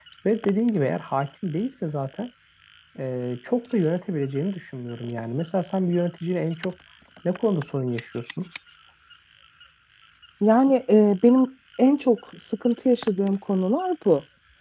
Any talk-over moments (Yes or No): No